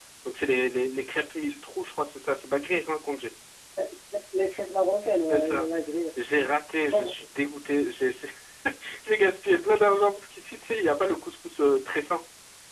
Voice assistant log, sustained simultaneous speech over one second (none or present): none